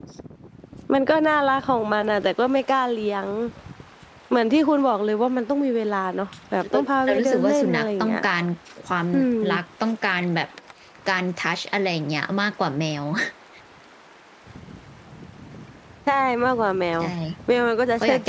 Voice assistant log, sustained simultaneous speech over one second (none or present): present